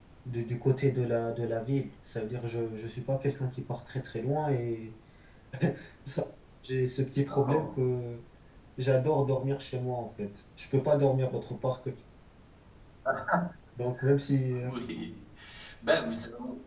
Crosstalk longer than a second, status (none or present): none